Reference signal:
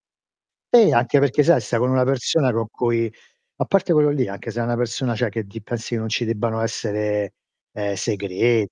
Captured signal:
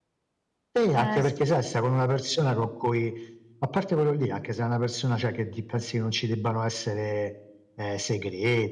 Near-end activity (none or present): present